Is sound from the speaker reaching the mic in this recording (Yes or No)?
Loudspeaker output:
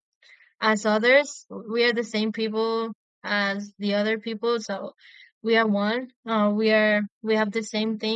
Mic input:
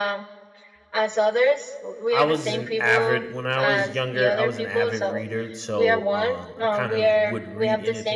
Yes